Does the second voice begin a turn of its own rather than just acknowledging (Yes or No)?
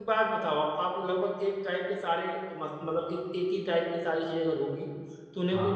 No